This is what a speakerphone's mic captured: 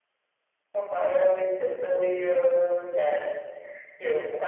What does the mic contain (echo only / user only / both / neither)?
echo only